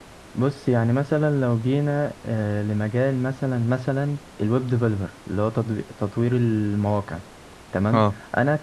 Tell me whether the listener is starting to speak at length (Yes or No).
No